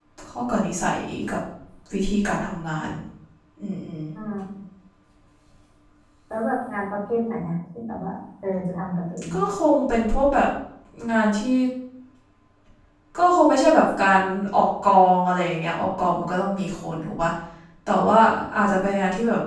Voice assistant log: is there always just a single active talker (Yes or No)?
Yes